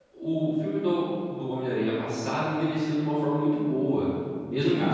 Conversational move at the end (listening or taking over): listening